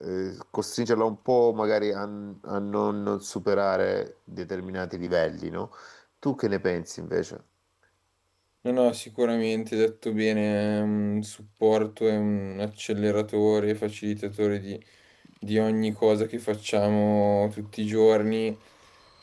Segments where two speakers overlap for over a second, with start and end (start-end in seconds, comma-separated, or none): none